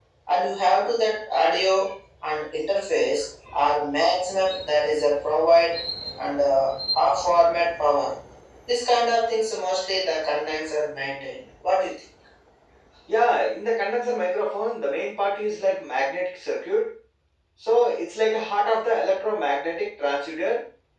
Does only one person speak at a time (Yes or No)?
Yes